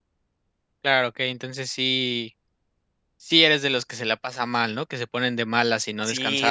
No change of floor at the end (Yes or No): No